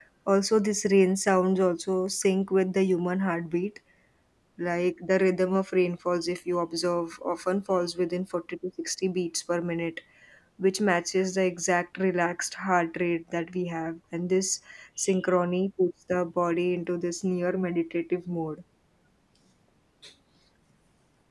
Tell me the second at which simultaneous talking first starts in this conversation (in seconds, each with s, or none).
none